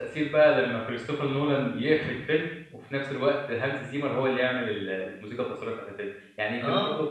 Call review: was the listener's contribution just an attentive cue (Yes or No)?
Yes